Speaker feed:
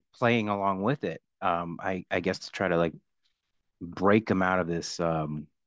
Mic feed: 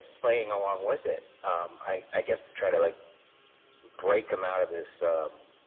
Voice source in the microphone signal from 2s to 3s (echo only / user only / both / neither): echo only